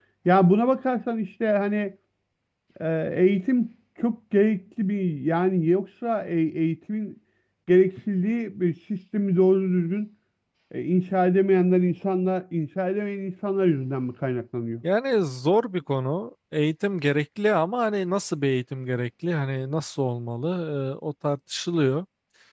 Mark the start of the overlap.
none

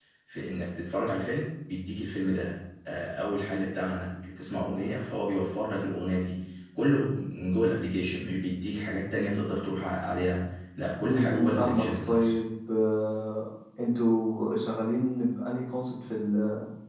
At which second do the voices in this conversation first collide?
11 s

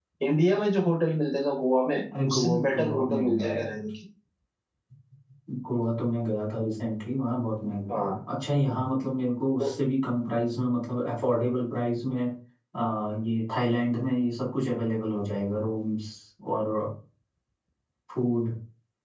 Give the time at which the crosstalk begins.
2 s

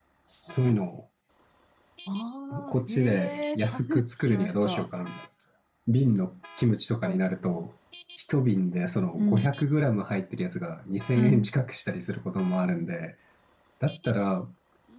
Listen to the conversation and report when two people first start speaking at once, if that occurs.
3 s

